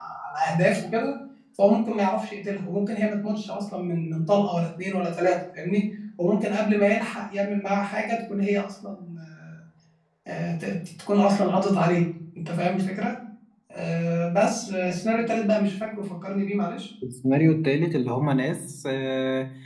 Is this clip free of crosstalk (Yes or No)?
Yes